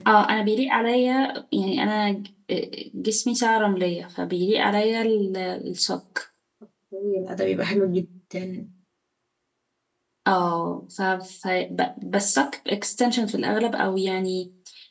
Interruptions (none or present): none